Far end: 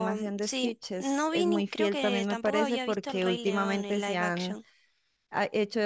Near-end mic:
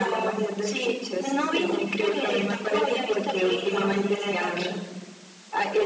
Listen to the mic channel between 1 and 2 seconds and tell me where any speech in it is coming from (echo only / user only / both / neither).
echo only